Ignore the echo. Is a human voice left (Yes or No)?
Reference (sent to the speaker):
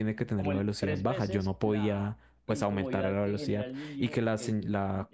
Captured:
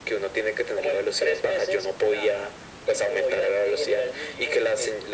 No